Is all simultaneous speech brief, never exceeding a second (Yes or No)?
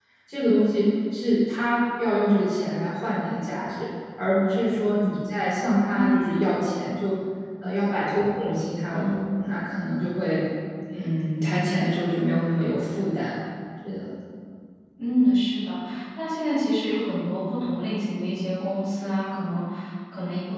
Yes